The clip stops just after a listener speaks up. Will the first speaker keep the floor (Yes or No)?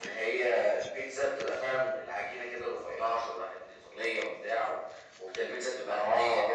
Yes